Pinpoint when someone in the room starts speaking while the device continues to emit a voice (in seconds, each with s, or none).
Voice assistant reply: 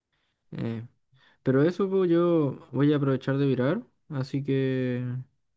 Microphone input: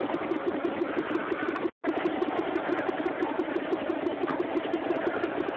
none